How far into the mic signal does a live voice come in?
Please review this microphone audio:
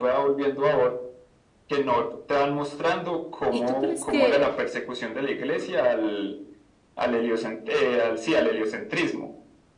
3 s

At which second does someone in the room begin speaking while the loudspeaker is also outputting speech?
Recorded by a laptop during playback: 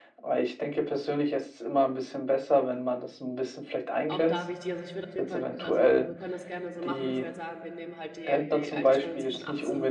4 s

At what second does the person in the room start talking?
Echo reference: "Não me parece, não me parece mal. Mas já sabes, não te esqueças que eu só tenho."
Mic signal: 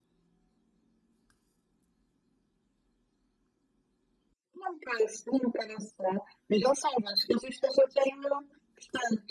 none

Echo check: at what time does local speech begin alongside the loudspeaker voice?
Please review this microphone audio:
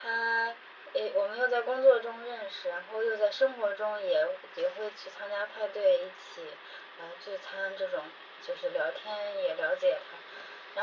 none

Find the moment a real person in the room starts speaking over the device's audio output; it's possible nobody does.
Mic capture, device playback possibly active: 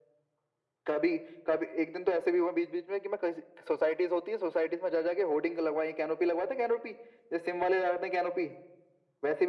none

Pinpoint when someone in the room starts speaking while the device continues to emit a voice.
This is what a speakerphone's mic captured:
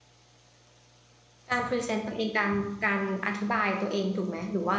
2 s

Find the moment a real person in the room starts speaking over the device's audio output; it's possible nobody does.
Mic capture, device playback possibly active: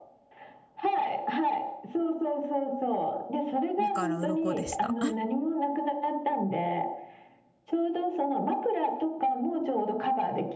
4 s

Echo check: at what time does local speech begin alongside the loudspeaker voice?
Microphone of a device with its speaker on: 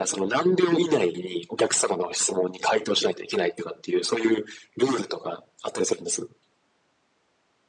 none

